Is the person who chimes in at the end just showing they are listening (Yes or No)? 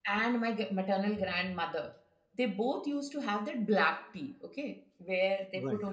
Yes